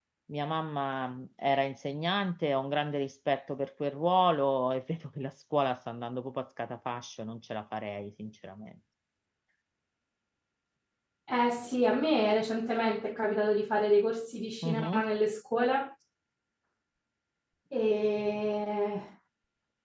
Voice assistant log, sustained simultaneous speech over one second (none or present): none